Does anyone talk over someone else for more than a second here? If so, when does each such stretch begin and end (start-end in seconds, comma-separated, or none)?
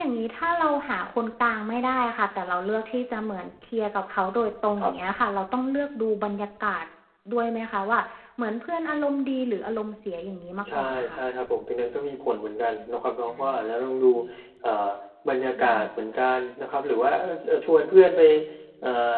none